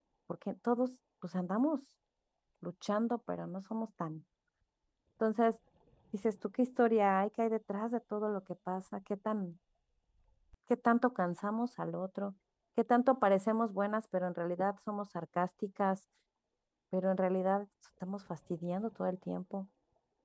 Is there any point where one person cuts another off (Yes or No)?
No